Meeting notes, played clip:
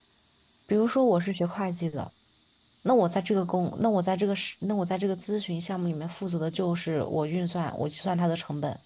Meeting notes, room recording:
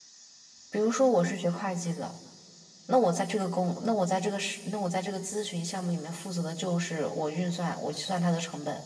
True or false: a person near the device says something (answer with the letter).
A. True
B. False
B